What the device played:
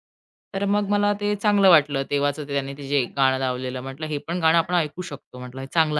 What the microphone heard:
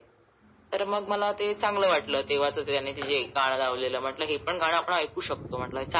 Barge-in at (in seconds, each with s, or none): none